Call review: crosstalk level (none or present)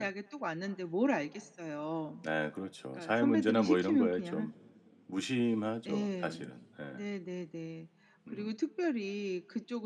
present